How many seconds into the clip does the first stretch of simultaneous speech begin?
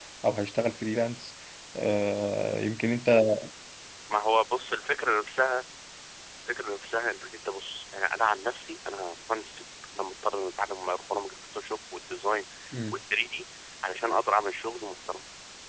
none

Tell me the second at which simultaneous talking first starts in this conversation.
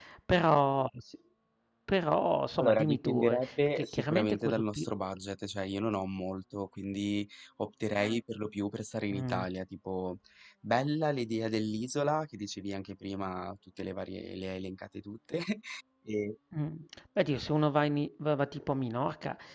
2.6 s

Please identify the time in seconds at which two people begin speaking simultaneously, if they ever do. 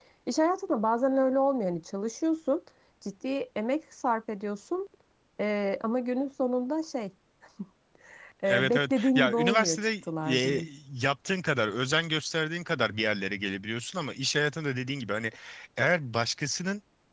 8.5 s

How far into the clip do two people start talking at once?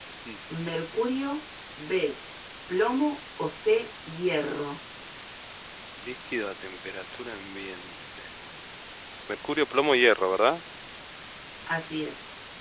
none

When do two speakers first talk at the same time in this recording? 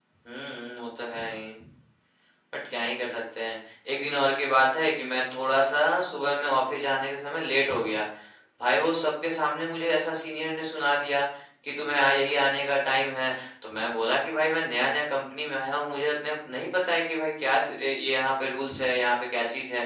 none

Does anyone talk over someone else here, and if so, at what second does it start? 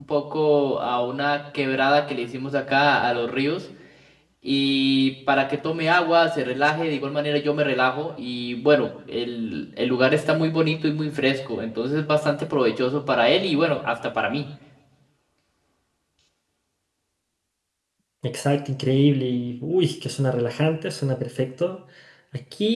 none

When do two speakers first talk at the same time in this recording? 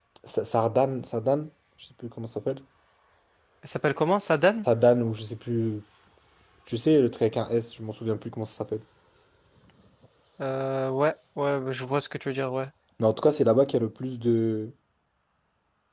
none

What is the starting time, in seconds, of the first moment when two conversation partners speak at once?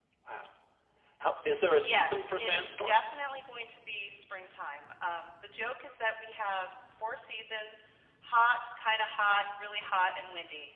1.7 s

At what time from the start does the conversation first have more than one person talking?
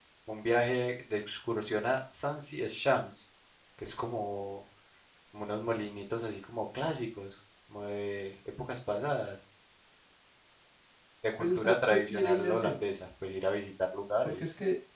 11.4 s

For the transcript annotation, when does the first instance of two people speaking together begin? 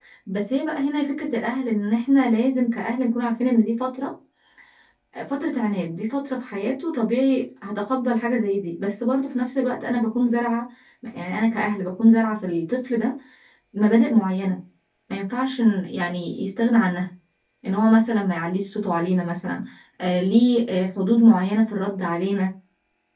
none

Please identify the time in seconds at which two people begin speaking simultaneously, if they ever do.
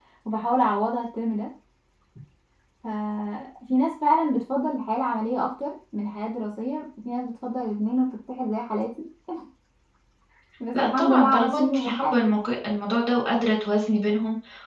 10.8 s

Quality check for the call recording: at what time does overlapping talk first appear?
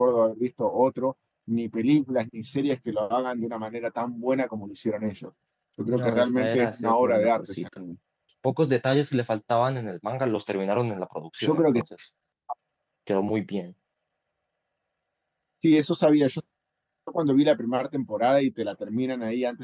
5.9 s

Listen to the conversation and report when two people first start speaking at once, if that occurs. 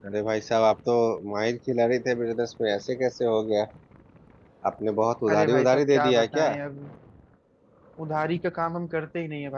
5.3 s

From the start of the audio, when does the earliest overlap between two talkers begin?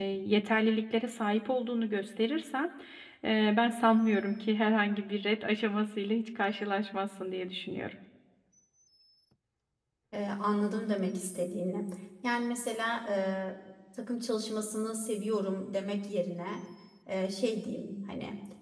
none

